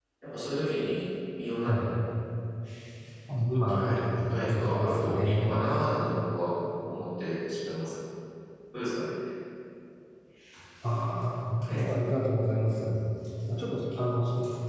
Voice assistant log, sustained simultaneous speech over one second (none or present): present